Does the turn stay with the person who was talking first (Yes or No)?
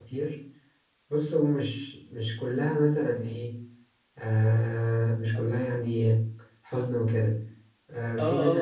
No